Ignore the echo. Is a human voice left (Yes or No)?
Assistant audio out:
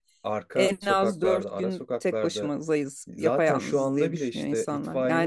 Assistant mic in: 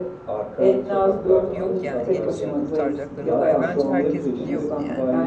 Yes